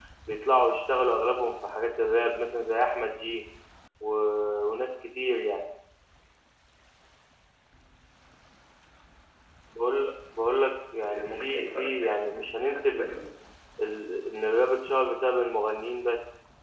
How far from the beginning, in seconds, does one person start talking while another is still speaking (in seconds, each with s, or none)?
11.0 s